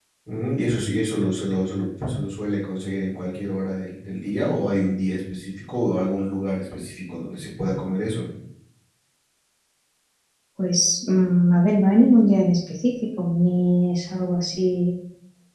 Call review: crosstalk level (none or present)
none